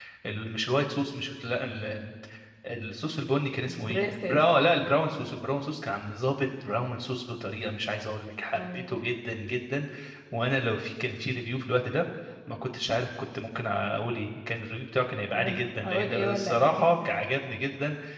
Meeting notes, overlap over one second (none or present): present